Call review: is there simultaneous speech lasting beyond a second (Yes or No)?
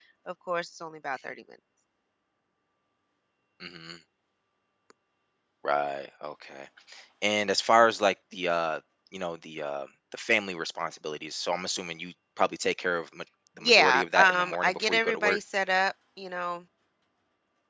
Yes